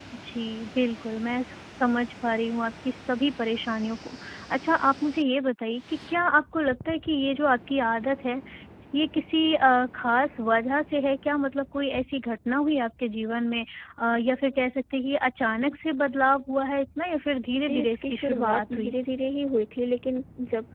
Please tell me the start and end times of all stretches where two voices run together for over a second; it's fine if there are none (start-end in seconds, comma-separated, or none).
17.6-18.9